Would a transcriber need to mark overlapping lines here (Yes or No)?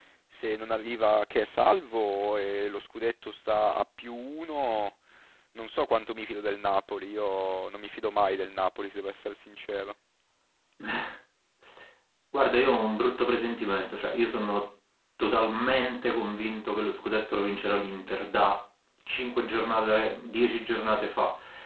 No